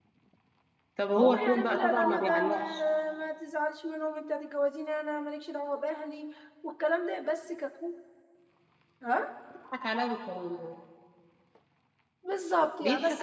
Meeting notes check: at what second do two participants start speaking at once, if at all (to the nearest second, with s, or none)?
1 s